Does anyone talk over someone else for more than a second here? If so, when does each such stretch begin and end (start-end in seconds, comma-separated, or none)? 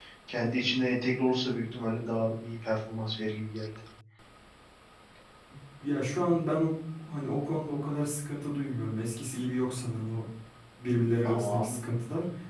none